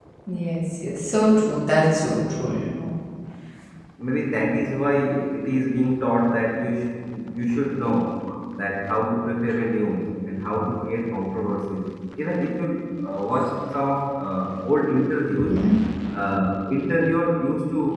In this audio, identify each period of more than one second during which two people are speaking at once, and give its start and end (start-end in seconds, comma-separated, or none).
none